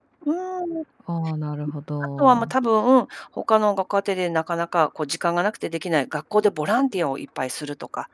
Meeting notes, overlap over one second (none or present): none